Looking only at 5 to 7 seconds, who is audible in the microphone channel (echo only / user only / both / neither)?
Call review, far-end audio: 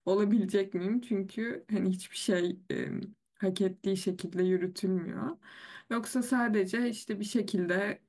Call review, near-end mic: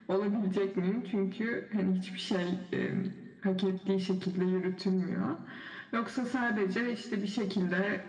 echo only